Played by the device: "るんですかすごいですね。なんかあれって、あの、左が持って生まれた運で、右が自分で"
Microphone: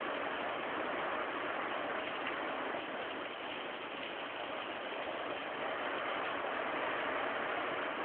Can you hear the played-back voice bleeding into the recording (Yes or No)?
No